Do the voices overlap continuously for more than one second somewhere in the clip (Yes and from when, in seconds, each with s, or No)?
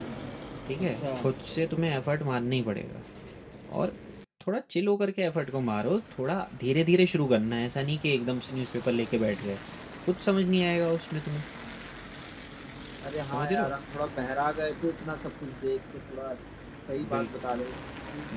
No